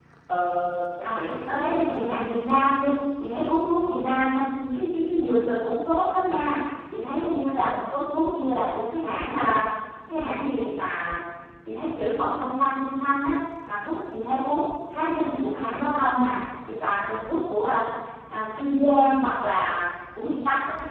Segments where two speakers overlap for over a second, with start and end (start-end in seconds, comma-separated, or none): 1.0-2.3